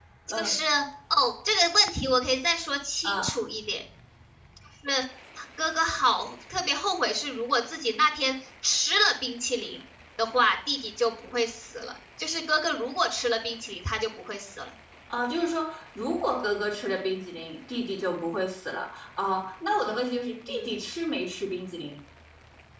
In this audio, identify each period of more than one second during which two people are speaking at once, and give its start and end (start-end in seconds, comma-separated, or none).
none